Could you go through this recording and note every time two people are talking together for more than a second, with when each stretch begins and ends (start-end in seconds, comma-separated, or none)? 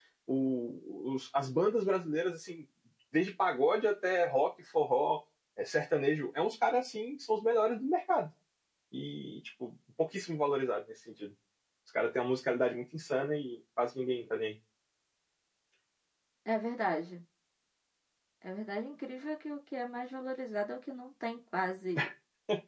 none